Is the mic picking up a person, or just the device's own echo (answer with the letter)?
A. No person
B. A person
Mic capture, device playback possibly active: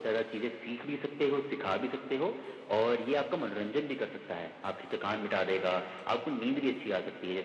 A